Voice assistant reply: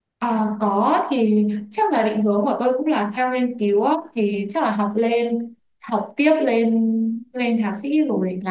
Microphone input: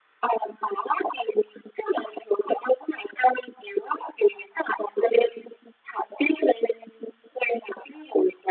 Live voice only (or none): none